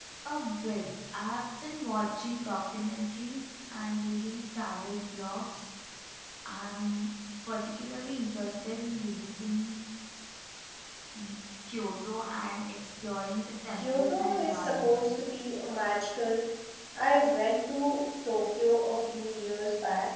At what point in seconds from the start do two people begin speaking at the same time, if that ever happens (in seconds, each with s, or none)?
13.8 s